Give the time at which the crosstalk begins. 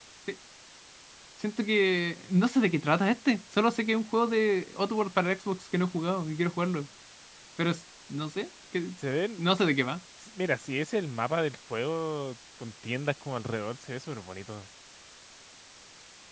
none

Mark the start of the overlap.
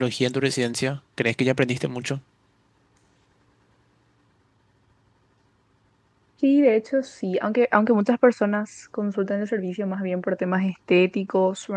none

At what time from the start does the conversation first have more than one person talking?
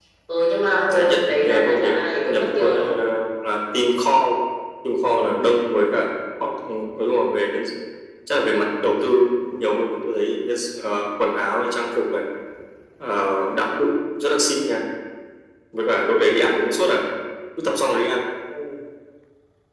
0.9 s

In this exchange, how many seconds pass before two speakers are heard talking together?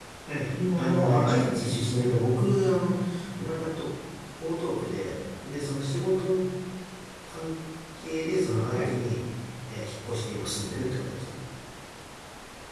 0.8 s

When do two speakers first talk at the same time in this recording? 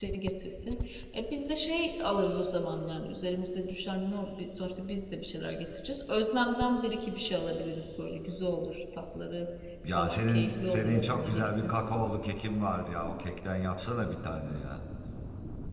10.0 s

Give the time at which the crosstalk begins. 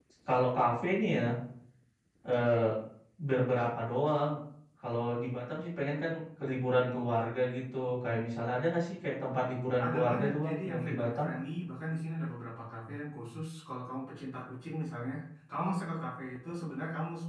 9.8 s

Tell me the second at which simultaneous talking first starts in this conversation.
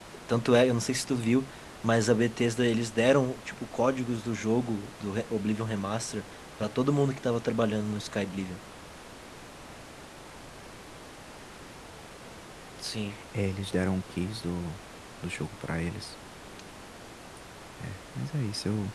none

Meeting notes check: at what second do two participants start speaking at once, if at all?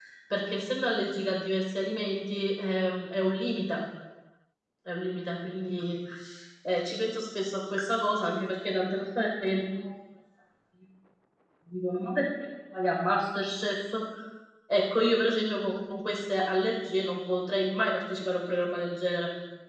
none

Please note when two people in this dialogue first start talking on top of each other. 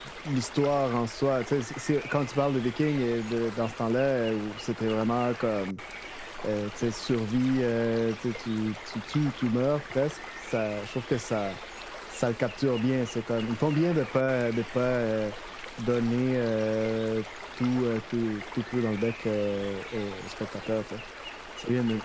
none

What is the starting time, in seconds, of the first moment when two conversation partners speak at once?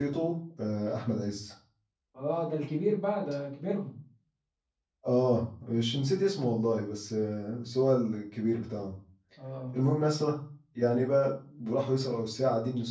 none

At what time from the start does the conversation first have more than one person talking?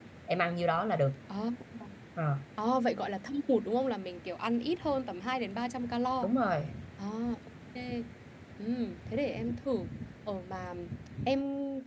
none

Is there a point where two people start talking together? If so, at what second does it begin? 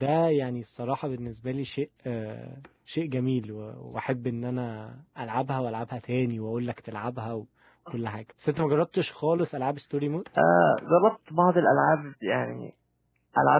none

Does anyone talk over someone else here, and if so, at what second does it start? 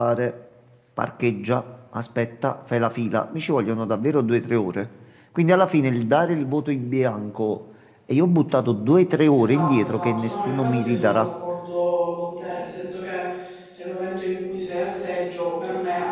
9.2 s

